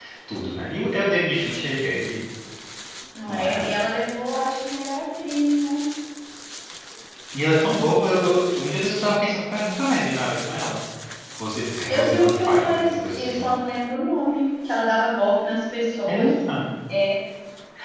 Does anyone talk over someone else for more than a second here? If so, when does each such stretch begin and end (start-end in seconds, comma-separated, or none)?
11.9-13.5